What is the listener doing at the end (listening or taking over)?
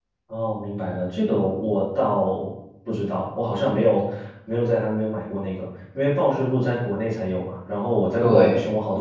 listening